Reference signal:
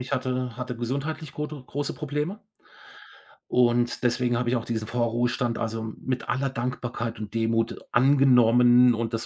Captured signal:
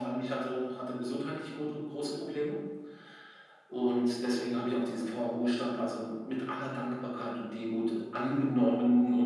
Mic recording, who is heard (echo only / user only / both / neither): echo only